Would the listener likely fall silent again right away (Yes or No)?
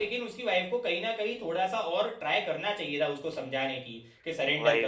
Yes